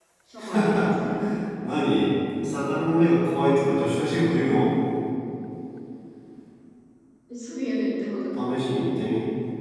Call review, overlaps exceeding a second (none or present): none